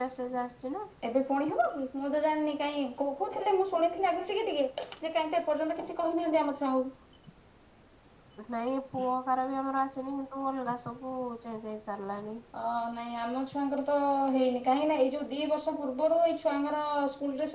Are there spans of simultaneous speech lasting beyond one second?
No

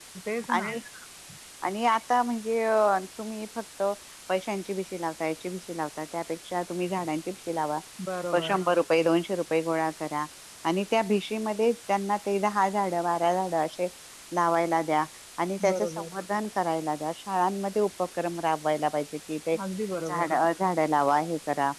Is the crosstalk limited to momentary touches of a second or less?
Yes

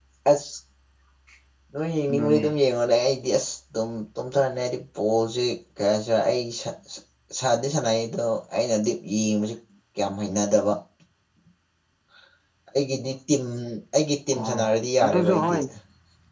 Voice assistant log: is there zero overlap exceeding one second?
No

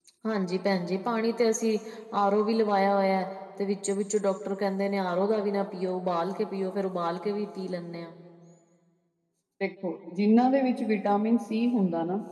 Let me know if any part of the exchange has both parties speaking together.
No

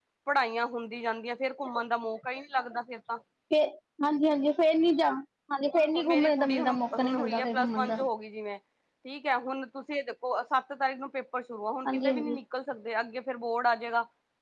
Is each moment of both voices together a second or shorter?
No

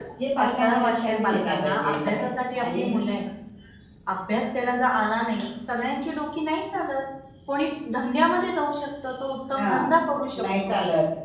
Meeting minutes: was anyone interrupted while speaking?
Yes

